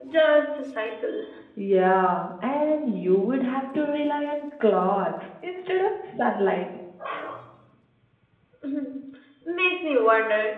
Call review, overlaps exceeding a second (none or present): none